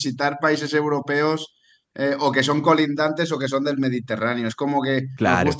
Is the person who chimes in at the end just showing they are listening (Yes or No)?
Yes